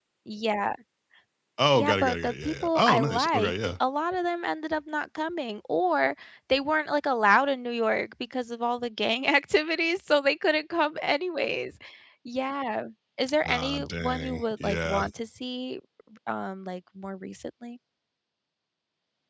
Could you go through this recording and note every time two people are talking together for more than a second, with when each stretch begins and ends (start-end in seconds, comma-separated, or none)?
1.8-3.5, 13.5-15.0